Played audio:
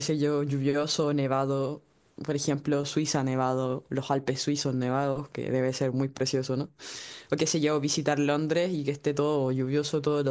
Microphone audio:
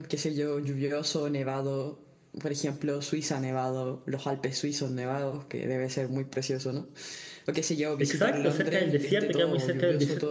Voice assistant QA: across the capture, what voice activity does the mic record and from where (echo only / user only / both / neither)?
both